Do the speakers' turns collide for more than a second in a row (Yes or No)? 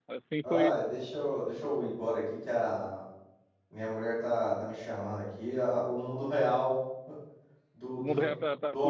No